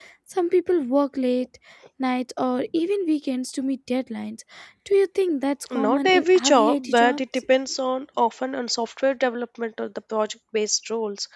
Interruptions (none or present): present